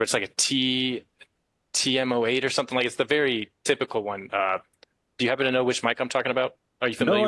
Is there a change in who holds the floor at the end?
Yes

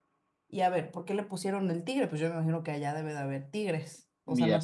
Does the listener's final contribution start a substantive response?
Yes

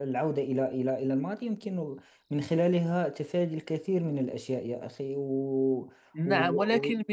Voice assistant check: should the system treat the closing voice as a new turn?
Yes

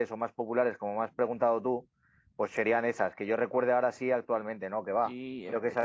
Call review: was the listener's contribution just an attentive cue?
No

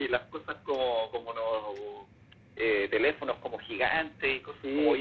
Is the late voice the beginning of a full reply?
Yes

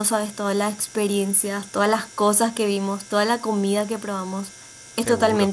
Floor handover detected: No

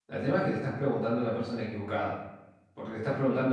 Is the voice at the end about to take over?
No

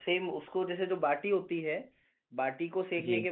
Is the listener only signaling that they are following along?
Yes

